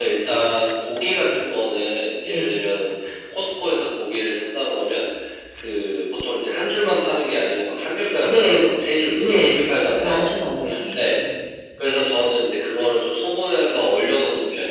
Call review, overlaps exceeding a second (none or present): none